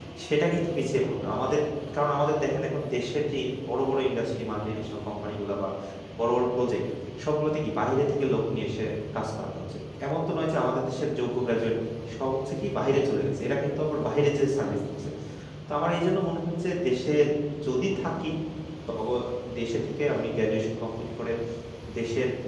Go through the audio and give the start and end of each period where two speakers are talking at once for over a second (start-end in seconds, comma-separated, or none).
none